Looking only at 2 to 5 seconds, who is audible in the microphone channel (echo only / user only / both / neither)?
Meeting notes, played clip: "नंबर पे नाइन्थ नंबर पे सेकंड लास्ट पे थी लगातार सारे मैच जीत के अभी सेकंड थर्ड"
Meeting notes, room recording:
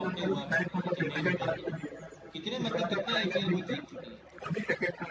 both